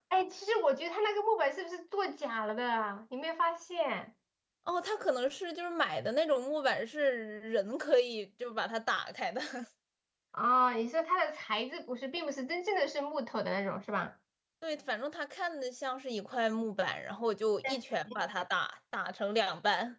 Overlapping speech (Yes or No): No